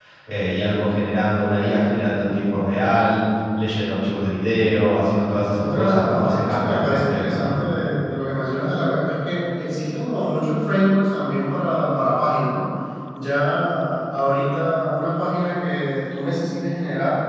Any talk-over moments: Yes, from 5.5 s

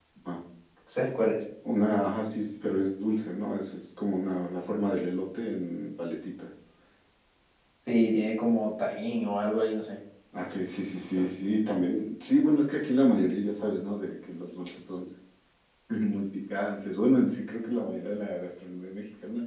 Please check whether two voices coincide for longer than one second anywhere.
No

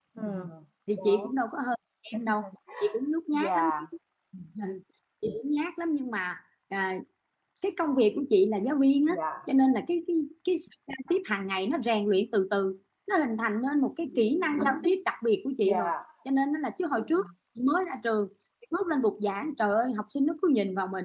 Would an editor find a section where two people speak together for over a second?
No

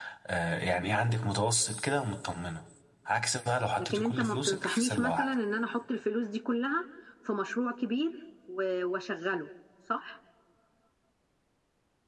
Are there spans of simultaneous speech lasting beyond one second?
Yes, from 3.8 s

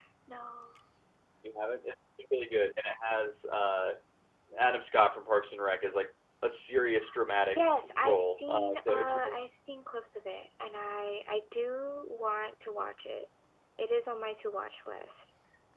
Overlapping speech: Yes, from 7.5 s

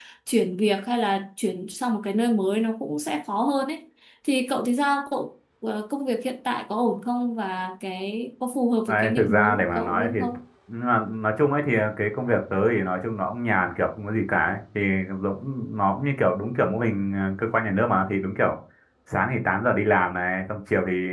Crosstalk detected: Yes, from 8.9 s

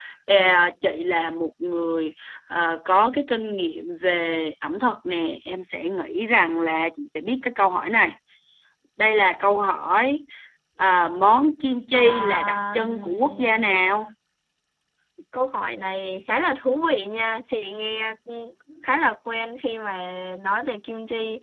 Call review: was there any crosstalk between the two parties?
Yes, from 11.9 s

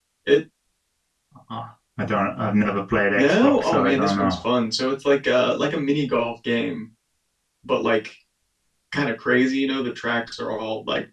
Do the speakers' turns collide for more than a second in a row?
Yes, from 3.1 s

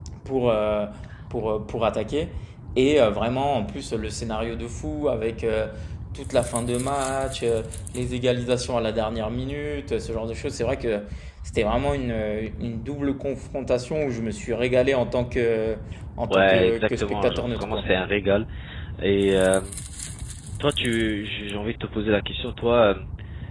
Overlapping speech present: Yes, from 16.3 s

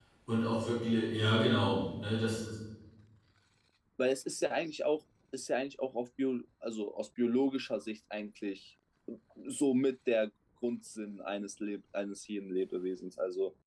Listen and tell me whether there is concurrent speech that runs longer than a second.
No

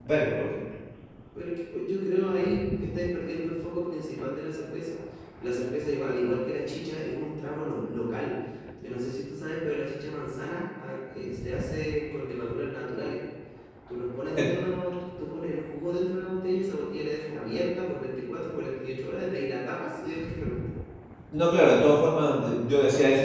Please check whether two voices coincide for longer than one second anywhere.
No

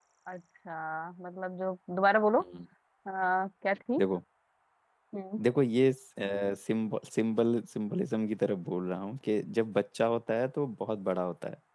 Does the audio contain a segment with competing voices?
No

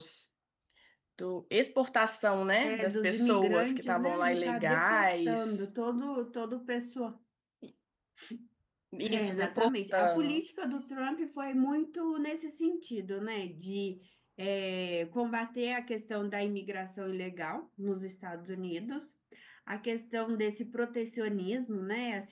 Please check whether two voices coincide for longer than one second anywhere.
Yes, from 2.6 s

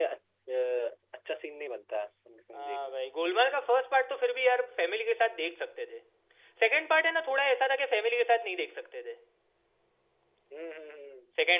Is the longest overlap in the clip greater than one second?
No

